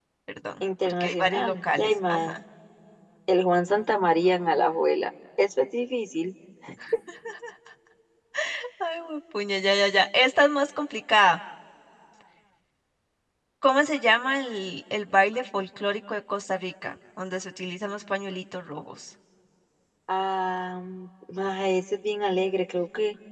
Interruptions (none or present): present